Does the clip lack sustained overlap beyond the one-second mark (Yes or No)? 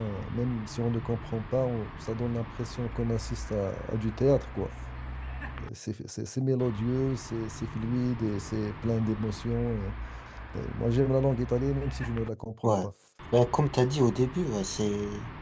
Yes